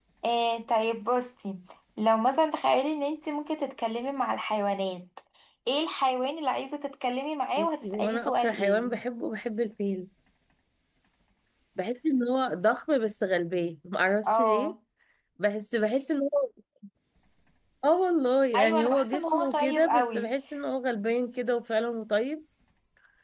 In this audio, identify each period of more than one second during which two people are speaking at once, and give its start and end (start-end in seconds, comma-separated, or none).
7.6-8.9, 18.5-20.3